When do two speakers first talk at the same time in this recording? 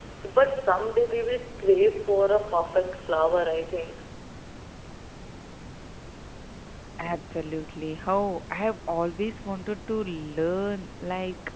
none

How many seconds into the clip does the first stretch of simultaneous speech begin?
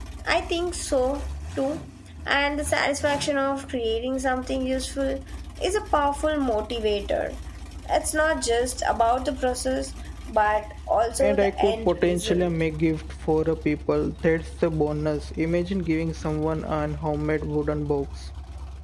11.2 s

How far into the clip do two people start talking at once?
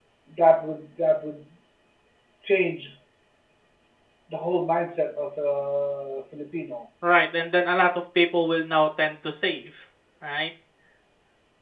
none

